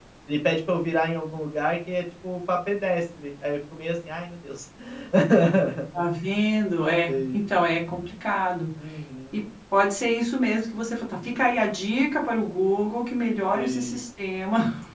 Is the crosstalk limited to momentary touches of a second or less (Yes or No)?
Yes